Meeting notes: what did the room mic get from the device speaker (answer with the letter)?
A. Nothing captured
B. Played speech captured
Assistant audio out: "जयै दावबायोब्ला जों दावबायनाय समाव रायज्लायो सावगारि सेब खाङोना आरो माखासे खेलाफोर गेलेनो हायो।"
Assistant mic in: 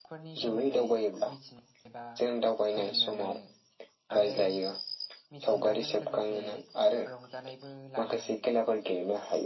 B